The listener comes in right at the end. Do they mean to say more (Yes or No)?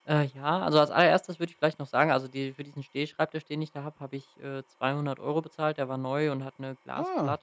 No